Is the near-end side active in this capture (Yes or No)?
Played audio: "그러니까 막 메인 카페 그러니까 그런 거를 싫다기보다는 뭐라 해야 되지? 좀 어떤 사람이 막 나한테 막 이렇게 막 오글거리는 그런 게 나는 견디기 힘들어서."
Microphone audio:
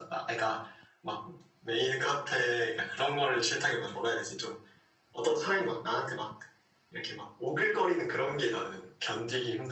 No